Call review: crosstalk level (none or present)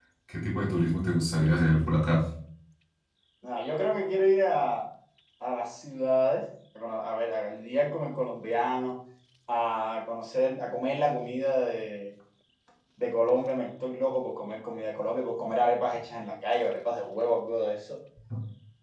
none